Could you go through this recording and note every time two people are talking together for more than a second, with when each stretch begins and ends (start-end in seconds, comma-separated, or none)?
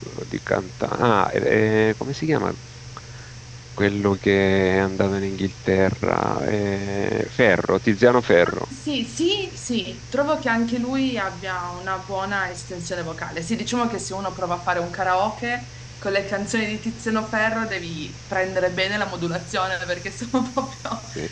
none